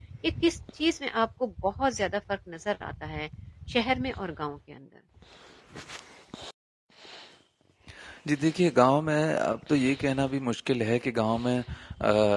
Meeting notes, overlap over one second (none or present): none